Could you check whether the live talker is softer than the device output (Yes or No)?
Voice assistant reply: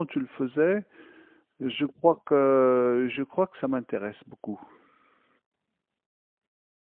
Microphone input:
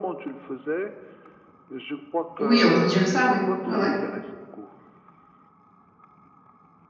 No